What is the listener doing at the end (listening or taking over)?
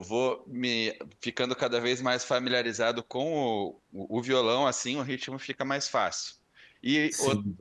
listening